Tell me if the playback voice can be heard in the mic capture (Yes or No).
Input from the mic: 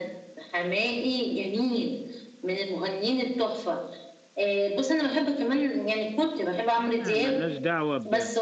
Yes